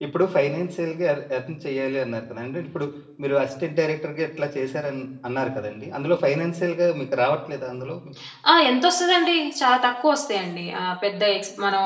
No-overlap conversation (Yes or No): Yes